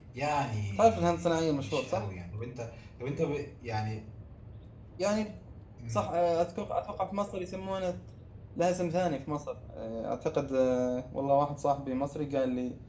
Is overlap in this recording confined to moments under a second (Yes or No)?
No